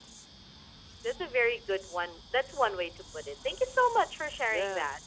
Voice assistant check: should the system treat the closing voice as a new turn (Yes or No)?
Yes